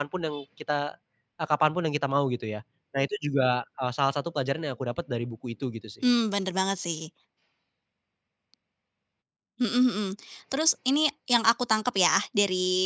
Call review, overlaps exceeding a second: none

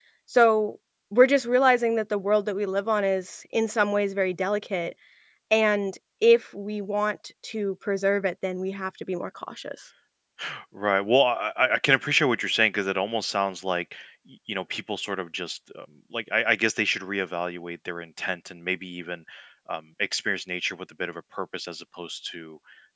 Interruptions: none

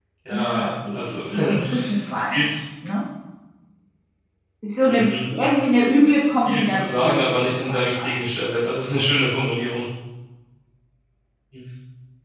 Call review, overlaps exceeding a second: present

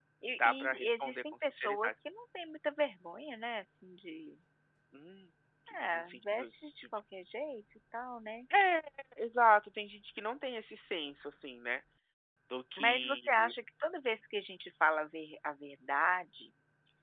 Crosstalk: present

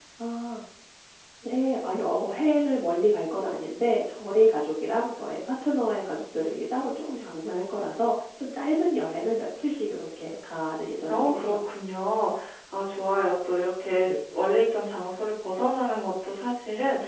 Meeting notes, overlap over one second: none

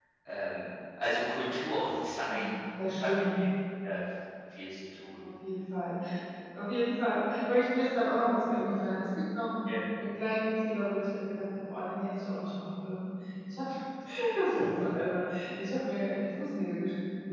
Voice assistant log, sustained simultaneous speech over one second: none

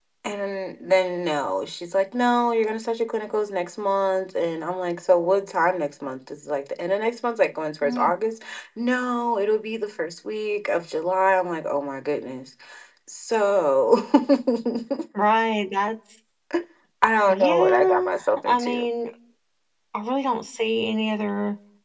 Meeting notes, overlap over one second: present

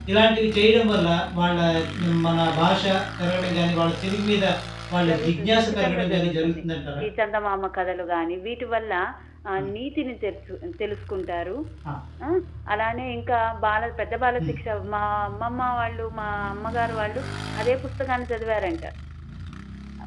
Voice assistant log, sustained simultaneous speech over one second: present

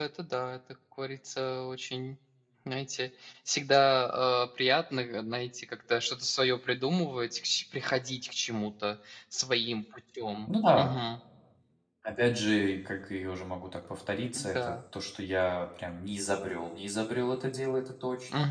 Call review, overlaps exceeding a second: none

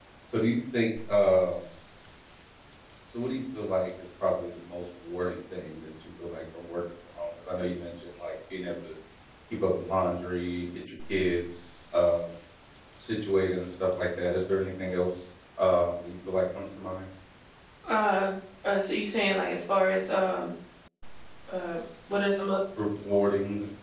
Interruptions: none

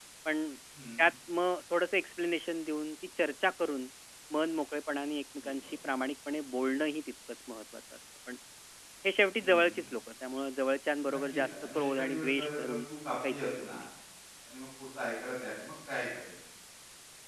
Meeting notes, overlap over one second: present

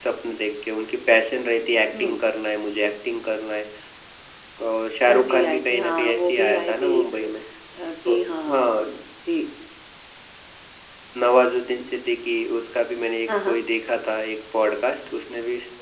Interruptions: present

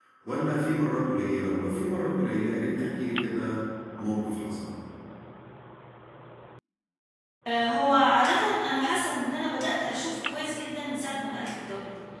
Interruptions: none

